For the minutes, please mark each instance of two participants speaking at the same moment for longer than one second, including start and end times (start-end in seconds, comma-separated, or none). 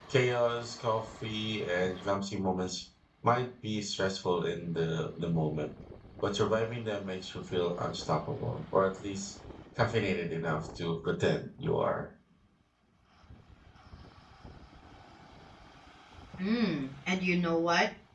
none